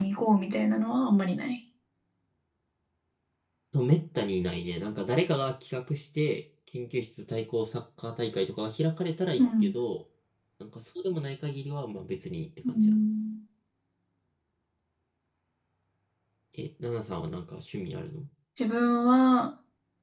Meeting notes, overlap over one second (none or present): none